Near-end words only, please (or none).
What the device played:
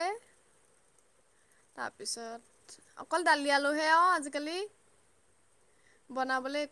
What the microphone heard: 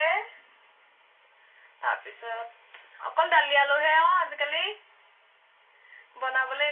none